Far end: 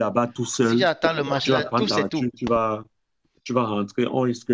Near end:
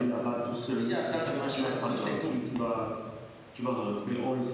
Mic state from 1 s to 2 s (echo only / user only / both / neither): echo only